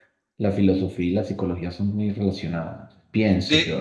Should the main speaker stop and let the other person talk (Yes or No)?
Yes